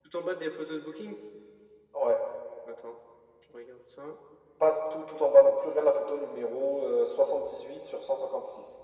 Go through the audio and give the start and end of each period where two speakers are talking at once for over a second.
none

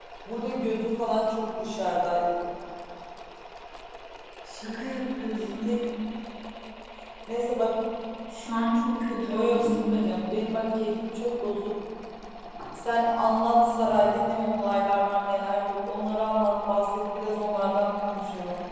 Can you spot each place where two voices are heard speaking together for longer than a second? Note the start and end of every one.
none

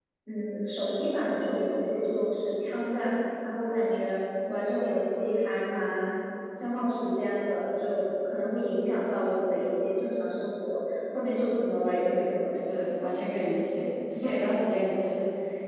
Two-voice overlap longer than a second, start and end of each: none

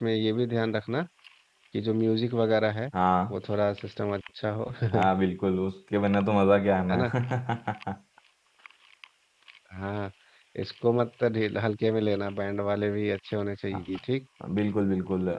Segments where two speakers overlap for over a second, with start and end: none

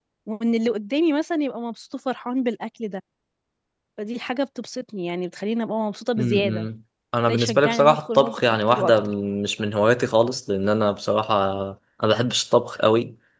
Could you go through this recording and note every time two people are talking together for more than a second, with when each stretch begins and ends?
7.2-9.0

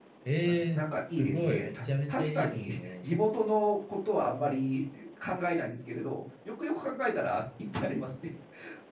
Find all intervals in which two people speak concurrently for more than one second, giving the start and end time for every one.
0.7-3.1

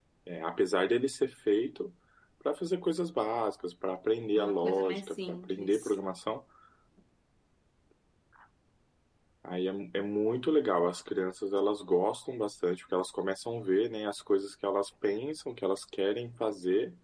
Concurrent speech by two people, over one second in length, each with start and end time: 4.3-5.9

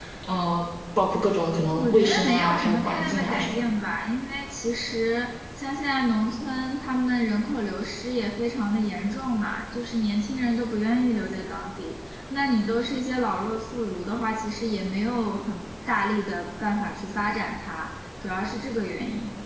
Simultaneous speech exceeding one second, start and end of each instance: 1.8-3.7

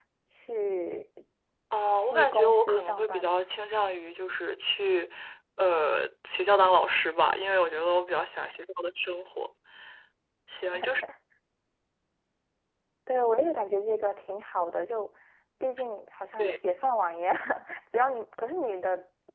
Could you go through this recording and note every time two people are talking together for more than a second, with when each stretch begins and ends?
2.0-3.4

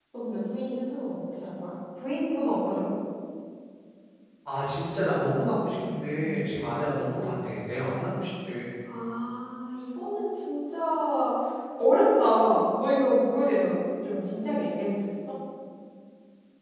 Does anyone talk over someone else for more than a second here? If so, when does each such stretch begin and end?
none

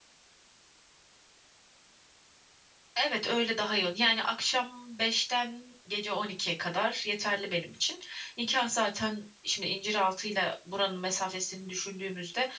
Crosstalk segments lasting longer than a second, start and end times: none

